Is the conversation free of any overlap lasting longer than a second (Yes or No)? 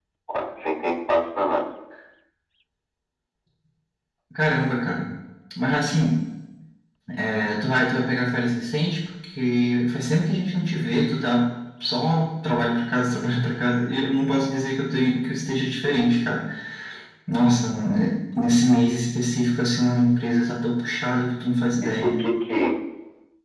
Yes